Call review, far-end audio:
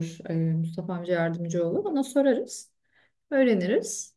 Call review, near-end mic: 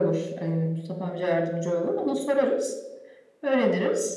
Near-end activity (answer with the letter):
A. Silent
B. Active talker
A